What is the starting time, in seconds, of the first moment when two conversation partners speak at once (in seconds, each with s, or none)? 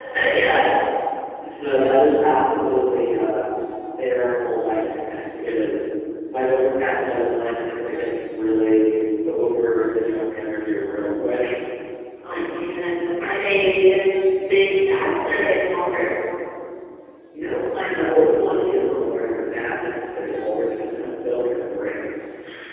none